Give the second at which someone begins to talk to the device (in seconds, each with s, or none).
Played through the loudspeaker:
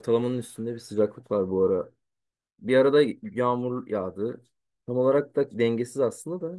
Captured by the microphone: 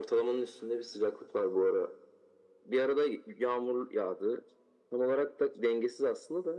none